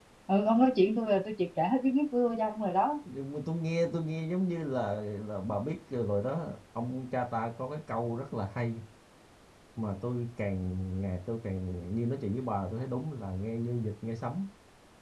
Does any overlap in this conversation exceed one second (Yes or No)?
No